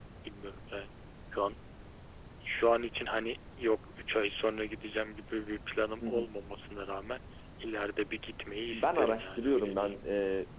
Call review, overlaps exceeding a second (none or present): present